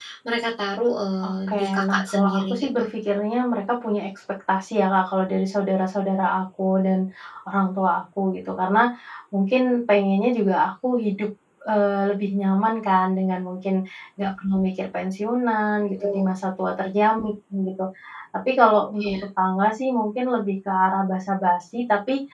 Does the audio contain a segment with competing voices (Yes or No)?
Yes